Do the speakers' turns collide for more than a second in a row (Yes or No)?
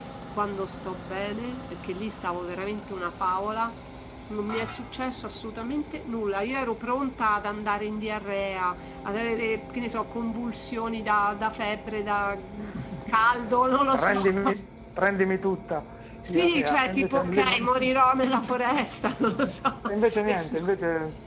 Yes